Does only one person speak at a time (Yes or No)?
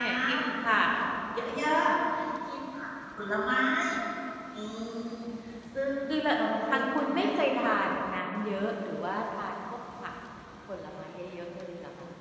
No